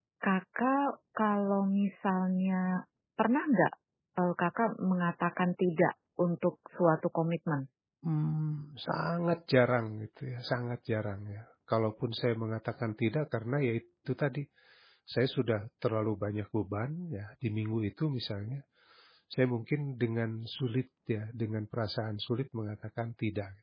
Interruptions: none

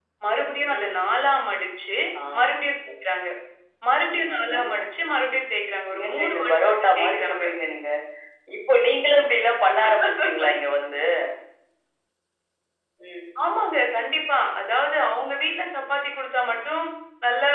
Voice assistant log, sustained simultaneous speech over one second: present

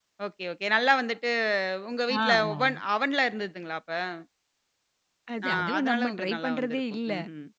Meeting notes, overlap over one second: present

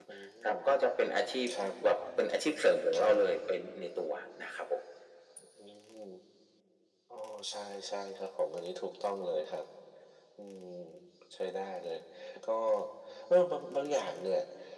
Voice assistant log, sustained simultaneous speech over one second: none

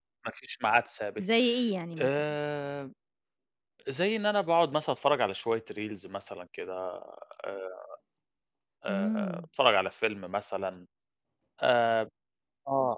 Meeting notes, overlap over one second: none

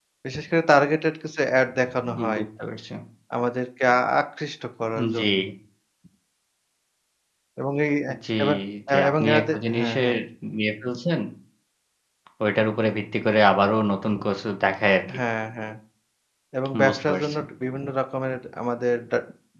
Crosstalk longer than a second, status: present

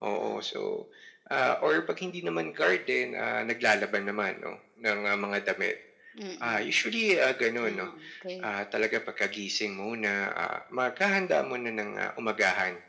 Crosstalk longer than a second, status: none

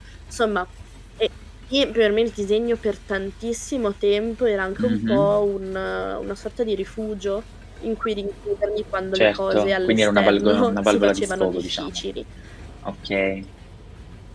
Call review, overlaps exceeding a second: present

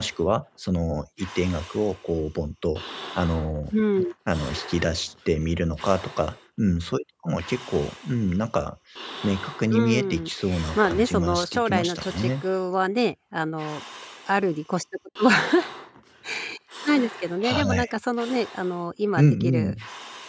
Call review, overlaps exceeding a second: present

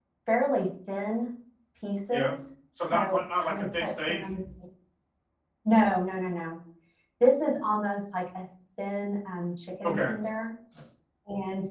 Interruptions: present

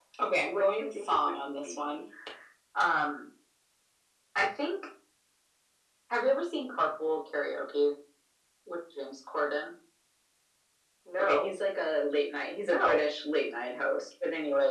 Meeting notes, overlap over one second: present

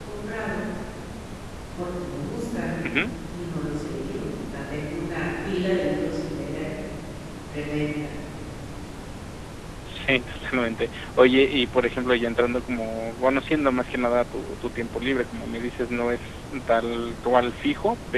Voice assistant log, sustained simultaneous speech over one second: none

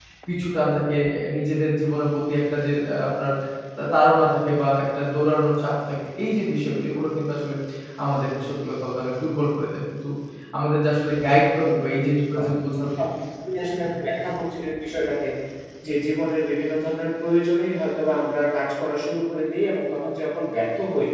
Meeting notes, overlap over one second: none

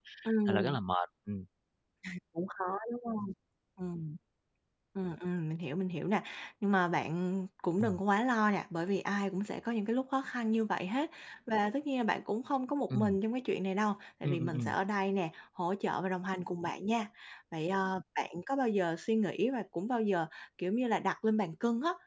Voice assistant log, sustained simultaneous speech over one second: none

